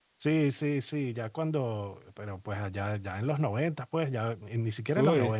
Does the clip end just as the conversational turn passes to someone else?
No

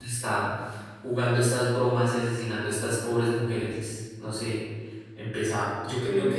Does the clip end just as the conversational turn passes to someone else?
No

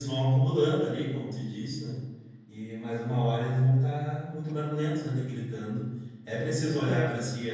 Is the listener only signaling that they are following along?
Yes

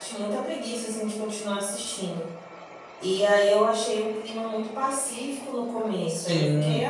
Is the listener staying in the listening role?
No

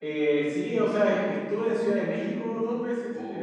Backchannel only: Yes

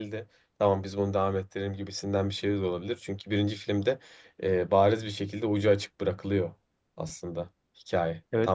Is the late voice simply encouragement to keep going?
No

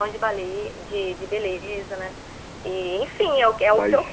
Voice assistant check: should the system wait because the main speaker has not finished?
Yes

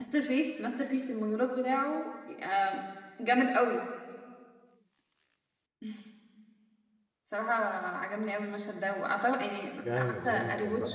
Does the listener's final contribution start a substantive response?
Yes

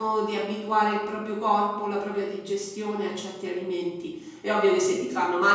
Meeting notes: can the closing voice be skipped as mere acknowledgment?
Yes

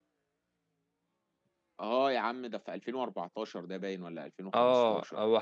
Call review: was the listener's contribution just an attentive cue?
No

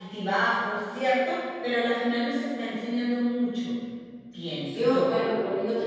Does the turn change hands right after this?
Yes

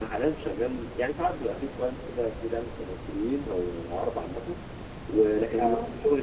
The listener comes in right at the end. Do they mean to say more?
No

